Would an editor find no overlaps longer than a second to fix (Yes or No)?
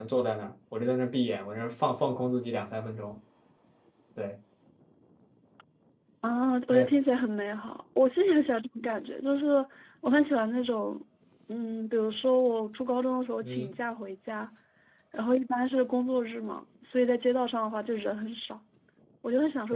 Yes